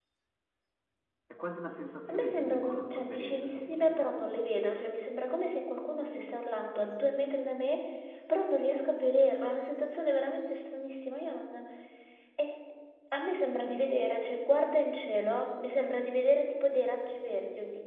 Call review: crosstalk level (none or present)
present